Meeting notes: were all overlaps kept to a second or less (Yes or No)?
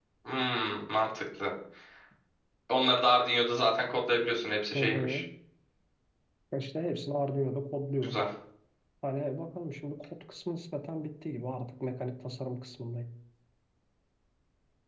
Yes